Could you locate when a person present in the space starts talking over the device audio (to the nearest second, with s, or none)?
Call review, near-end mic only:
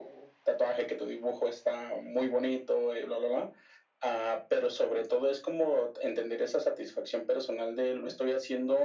none